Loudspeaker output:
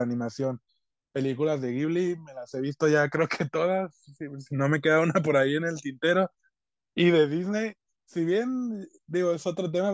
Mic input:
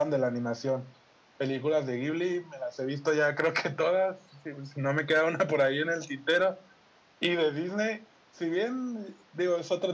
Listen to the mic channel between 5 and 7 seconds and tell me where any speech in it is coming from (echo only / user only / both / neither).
echo only